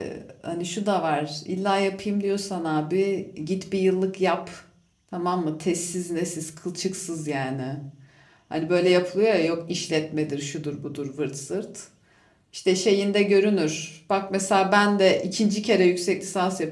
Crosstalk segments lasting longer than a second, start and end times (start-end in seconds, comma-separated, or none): none